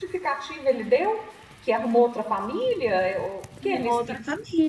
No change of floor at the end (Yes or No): No